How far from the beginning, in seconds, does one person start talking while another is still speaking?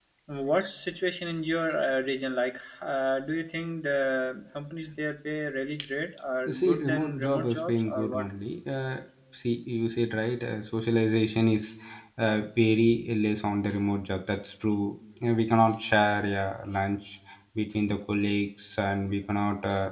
6 s

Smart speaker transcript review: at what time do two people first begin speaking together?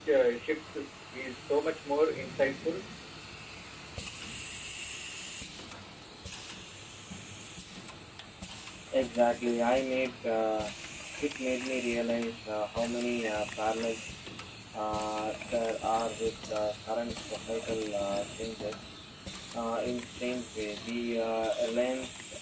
none

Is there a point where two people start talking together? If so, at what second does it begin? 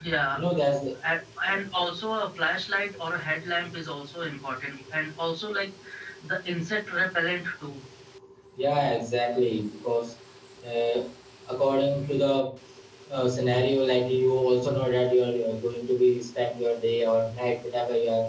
none

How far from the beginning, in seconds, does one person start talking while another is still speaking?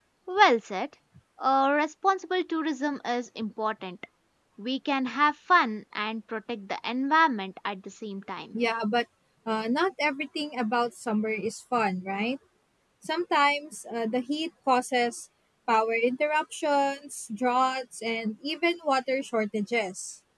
none

